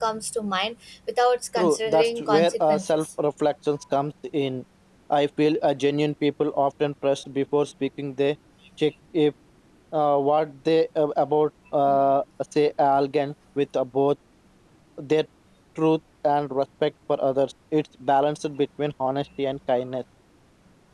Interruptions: present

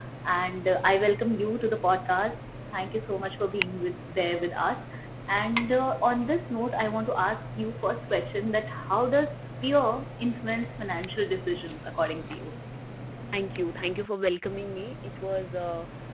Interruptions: none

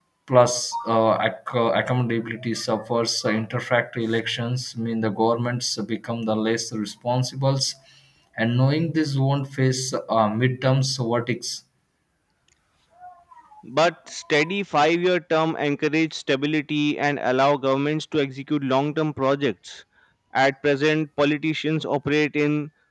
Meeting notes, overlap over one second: none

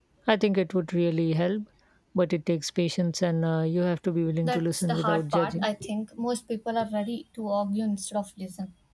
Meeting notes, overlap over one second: present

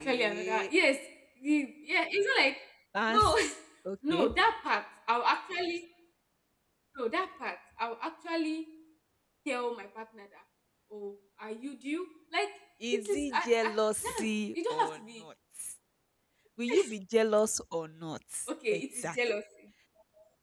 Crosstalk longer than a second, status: present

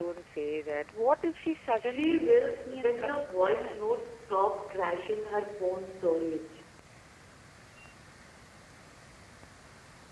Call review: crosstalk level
present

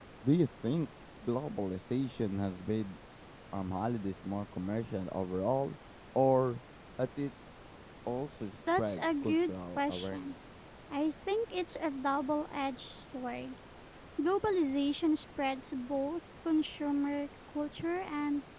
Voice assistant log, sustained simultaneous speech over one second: present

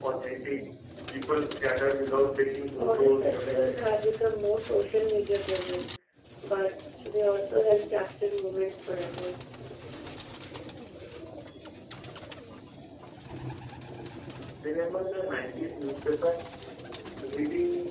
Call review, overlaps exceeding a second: present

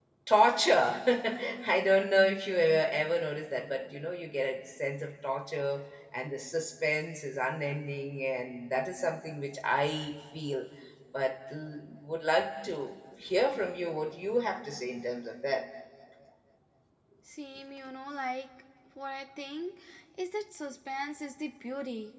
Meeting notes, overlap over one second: none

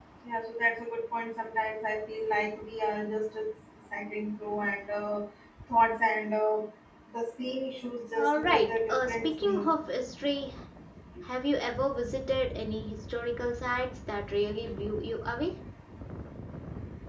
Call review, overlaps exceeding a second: present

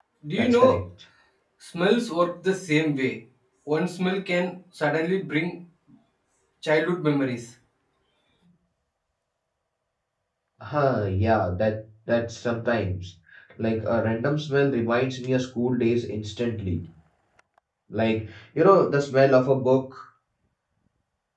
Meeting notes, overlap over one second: none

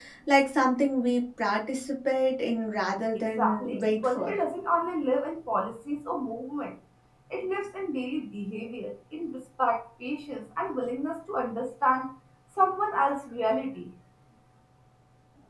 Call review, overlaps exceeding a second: present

